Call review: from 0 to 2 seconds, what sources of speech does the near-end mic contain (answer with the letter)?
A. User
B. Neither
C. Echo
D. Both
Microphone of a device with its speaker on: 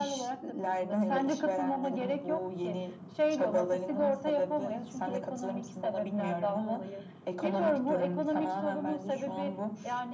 C